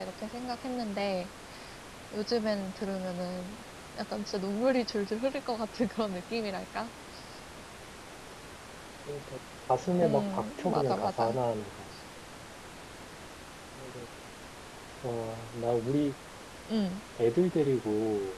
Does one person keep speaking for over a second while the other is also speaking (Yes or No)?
Yes